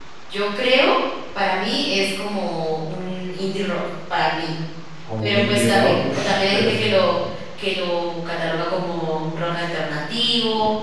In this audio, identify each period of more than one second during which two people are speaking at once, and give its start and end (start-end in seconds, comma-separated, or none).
5.2-6.8